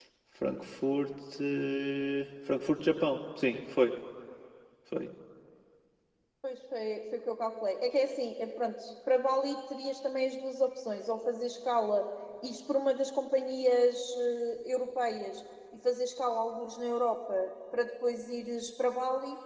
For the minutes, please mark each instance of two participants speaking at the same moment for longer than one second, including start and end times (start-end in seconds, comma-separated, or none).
none